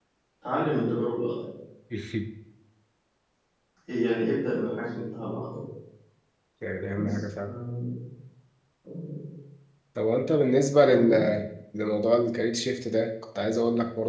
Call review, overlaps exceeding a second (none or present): none